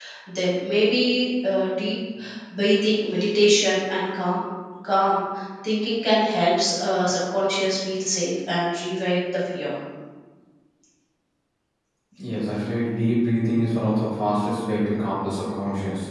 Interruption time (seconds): none

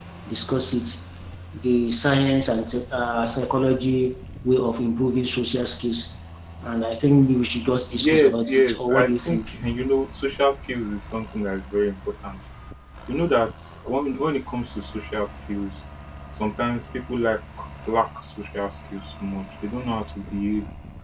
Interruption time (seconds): 8.0 s

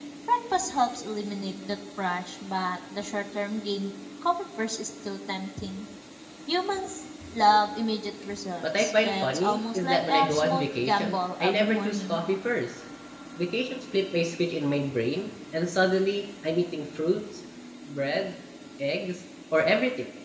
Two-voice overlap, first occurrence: 8.6 s

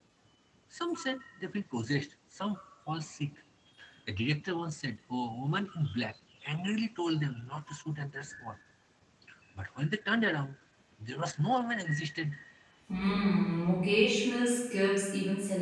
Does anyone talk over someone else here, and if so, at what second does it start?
none

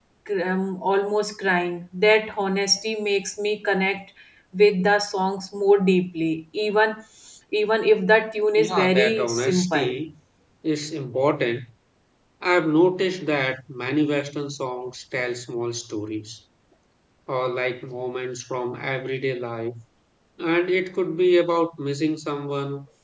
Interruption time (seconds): 8.6 s

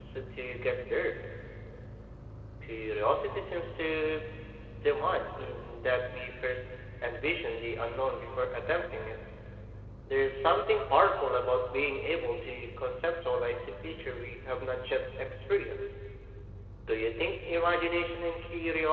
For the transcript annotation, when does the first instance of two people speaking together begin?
none

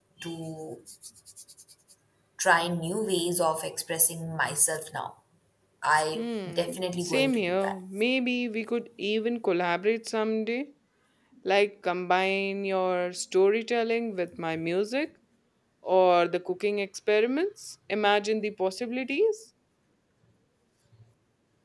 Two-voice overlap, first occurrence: 6.1 s

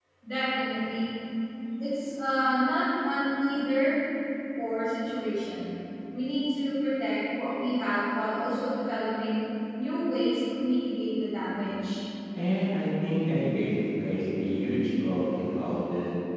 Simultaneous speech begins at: none

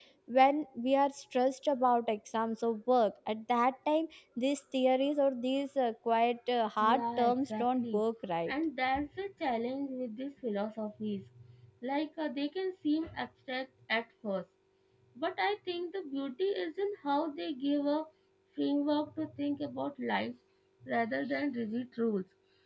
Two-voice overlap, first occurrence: 6.8 s

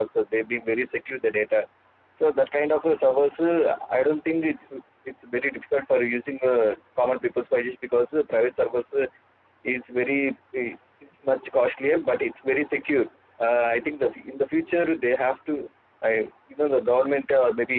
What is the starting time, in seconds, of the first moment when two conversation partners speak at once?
none

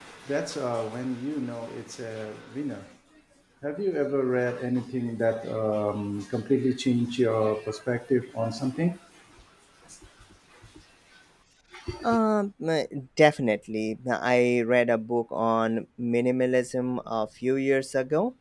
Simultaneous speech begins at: none

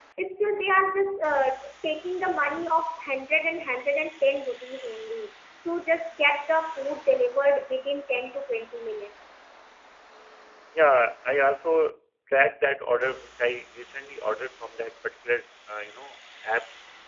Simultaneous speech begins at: none

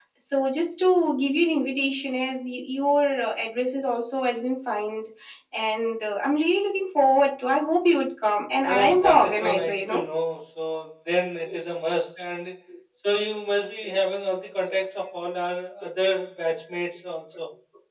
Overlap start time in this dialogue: 8.6 s

